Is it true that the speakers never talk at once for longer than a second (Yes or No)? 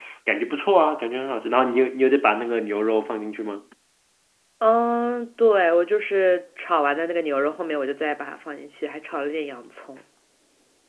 Yes